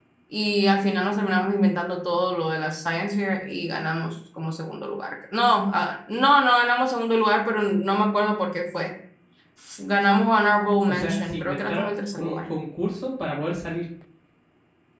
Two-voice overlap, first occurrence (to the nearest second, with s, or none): 11 s